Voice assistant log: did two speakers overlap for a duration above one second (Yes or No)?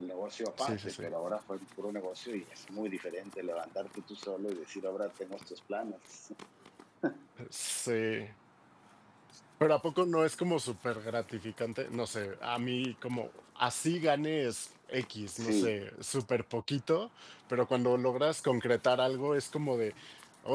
No